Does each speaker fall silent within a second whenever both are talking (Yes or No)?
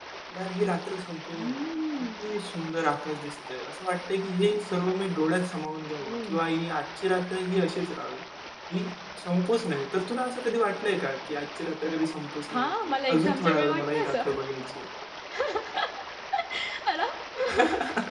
No